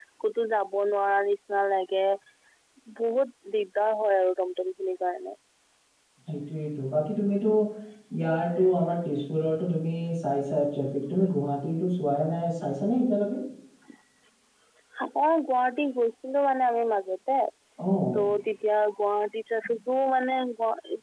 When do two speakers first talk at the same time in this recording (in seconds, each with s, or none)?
none